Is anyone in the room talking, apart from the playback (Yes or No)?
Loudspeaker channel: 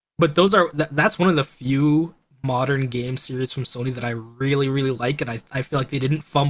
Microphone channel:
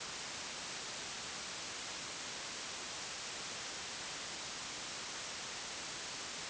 No